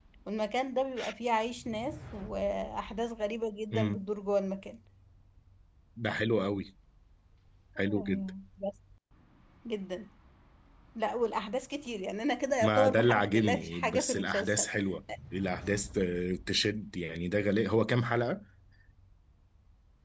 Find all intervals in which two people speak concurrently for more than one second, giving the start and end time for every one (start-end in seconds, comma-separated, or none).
12.6-14.7